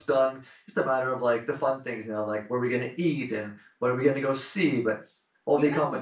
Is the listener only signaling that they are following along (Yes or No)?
Yes